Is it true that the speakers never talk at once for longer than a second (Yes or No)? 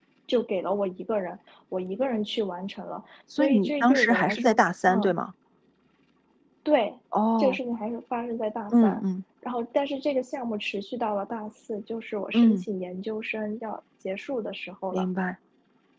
No